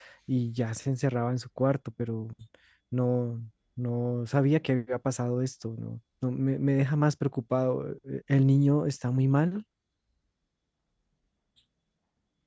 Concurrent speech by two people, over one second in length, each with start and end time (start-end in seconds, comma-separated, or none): none